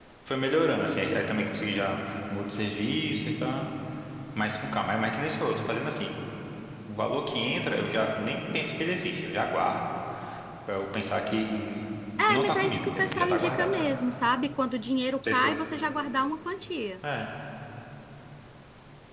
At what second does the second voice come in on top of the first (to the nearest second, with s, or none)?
12 s